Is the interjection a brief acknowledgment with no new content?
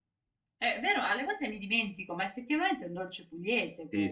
No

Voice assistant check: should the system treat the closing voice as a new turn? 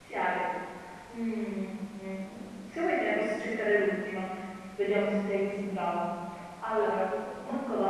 No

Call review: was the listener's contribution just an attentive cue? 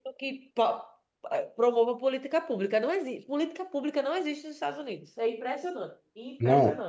No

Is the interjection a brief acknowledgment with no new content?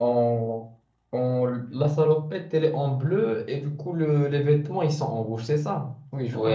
No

